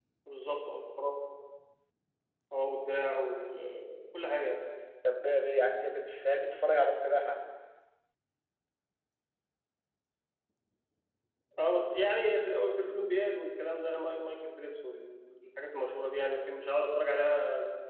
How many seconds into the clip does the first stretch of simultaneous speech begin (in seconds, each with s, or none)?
none